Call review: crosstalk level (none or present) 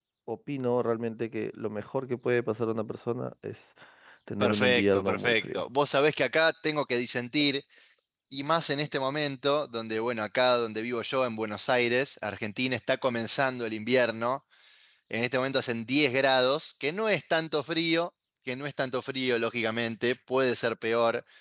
present